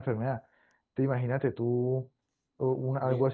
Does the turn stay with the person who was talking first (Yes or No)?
Yes